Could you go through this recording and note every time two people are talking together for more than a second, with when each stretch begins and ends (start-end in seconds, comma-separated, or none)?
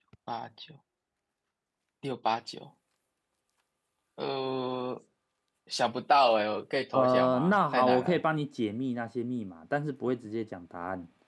6.9-8.2